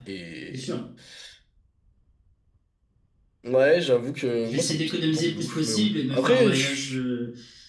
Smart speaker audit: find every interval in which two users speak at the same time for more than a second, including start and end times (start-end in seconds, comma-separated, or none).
4.5-7.0